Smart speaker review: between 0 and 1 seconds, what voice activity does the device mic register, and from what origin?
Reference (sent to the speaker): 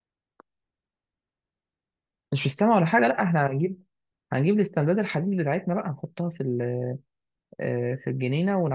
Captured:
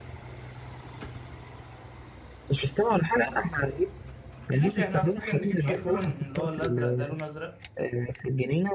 neither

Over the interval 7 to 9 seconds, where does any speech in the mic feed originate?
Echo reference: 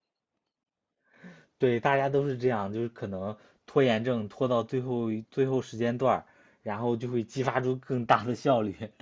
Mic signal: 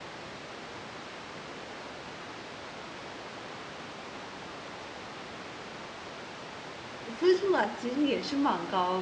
user only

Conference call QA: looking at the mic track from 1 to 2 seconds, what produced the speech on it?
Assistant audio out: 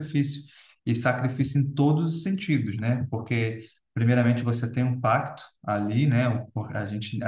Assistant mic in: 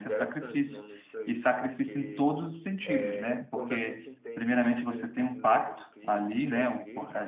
both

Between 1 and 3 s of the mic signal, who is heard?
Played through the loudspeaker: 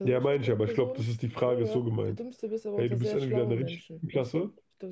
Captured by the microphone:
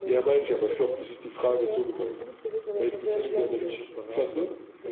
echo only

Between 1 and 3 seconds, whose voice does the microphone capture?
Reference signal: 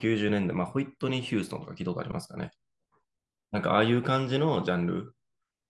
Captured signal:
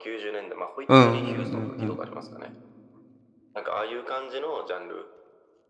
both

